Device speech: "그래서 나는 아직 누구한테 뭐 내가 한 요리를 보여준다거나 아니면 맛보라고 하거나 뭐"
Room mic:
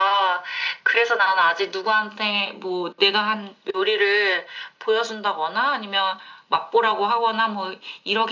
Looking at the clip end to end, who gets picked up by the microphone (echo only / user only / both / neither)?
echo only